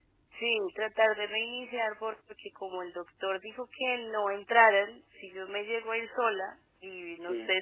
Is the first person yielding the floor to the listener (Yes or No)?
No